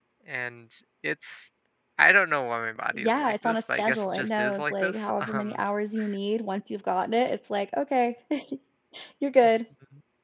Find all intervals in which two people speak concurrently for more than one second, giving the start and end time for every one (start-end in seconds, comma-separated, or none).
2.9-5.5